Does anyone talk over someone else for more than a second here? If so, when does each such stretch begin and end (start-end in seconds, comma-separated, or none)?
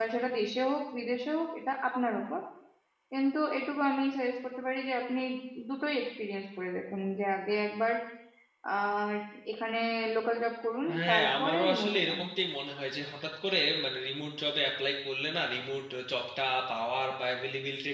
10.9-12.2